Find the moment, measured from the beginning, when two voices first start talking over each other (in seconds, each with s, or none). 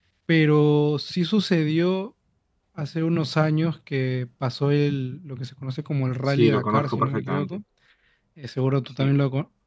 6.3 s